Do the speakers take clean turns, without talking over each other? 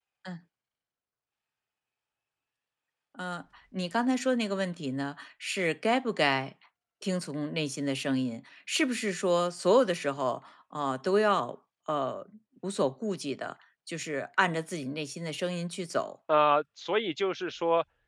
Yes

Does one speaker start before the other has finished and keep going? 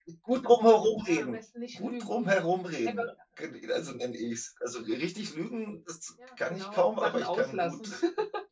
Yes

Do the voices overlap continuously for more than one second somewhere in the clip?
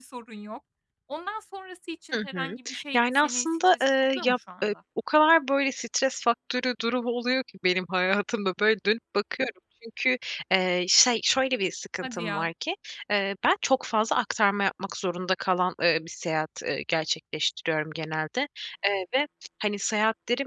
Yes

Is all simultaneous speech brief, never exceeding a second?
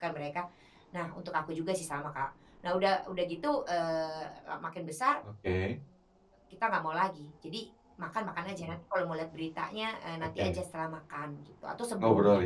Yes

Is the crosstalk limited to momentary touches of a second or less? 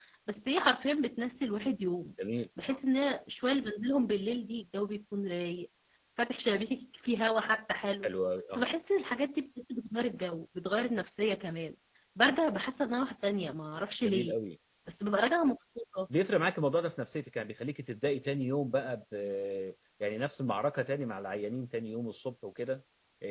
Yes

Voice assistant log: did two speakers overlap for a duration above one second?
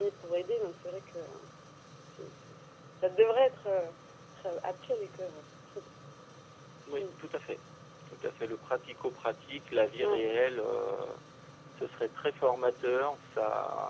No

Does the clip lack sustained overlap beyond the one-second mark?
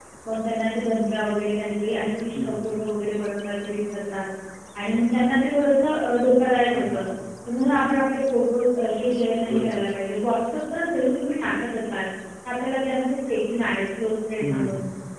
Yes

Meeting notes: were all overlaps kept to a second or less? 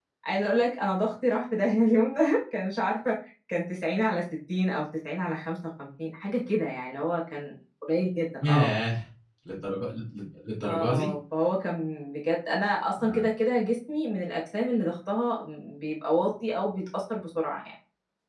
Yes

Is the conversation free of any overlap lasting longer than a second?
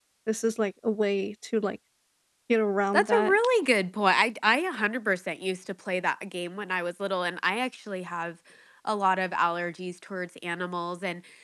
Yes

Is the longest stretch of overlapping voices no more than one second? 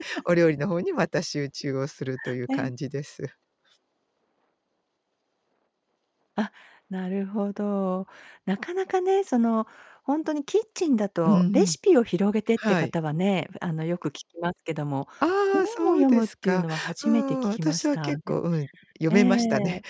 No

